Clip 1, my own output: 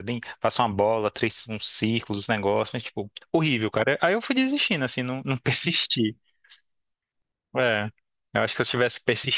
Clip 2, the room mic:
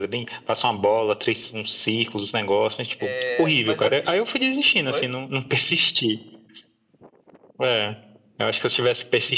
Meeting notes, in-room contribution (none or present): present